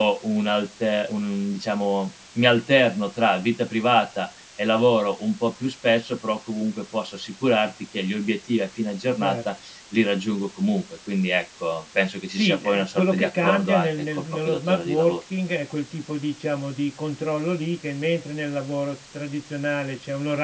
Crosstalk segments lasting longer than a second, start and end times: 12.4-15.2

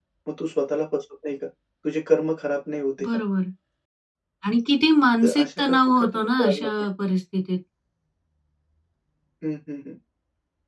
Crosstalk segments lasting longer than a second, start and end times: 5.2-6.7

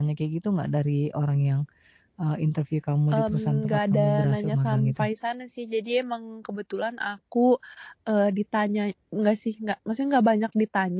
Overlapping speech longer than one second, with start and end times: 3.1-5.0

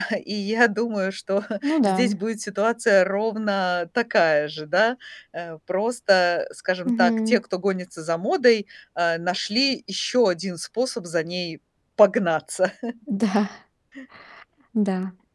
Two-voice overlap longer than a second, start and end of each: none

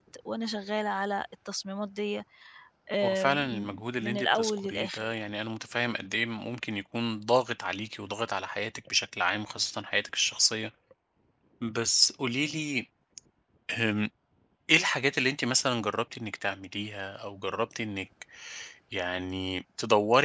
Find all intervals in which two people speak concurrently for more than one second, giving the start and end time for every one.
3.0-5.1

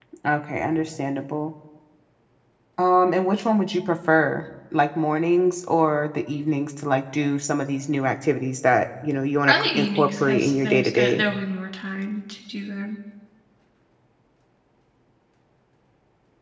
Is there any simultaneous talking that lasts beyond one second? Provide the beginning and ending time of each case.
9.5-11.2

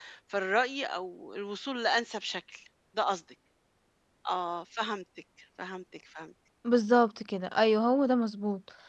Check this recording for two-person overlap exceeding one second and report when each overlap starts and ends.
none

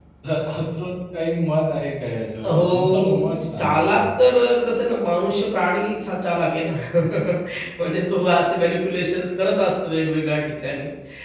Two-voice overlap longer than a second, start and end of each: 2.4-4.2

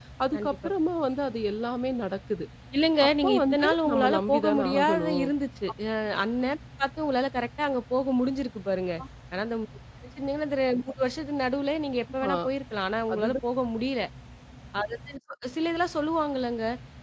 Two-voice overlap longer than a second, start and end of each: 3.1-5.2

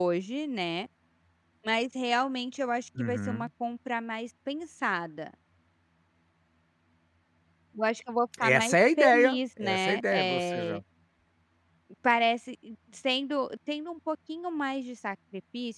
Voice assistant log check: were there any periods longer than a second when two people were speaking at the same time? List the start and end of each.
8.4-10.8

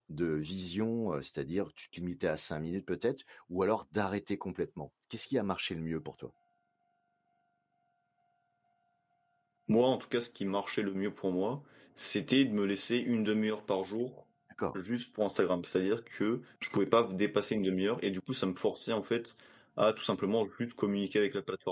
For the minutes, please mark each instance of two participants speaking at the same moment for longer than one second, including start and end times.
none

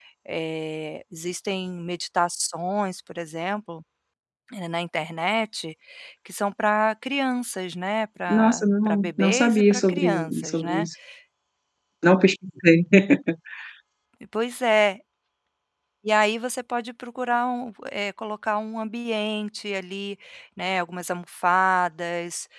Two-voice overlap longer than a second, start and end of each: 8.3-10.9

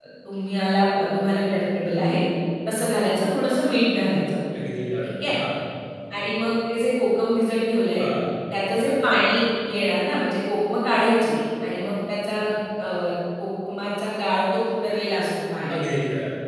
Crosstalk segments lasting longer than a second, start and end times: none

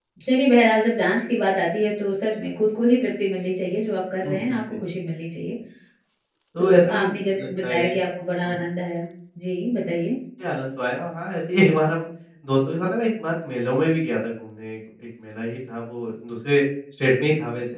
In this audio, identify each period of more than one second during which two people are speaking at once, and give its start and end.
6.6-7.9

